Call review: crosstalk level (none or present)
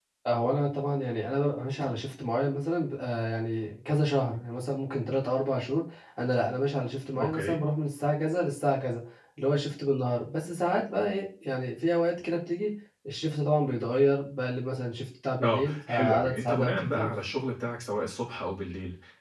present